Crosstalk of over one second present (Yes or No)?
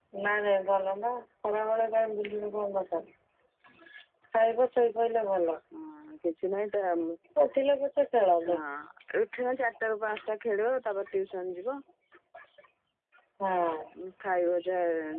No